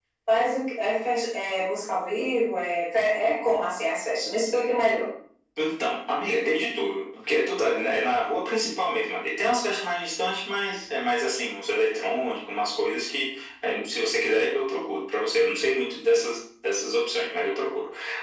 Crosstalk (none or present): none